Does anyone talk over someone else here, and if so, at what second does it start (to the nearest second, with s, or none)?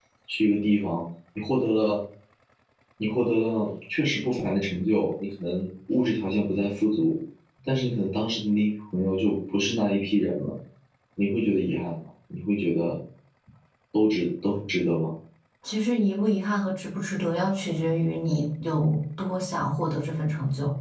none